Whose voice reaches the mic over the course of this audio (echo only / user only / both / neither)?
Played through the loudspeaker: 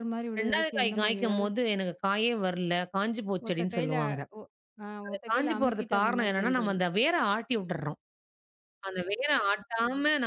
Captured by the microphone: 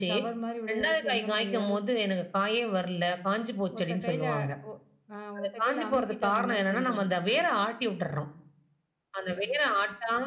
echo only